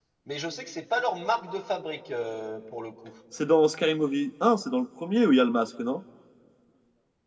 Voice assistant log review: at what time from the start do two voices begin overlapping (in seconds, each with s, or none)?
none